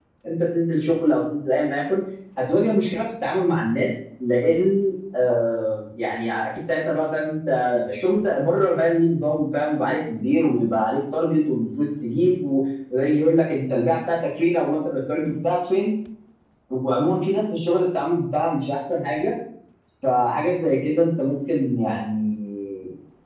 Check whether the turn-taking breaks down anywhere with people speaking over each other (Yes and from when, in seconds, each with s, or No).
No